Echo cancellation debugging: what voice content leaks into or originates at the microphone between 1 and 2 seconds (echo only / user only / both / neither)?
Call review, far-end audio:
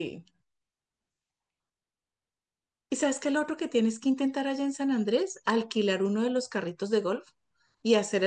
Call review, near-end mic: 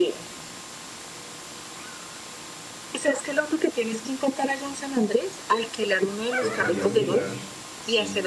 neither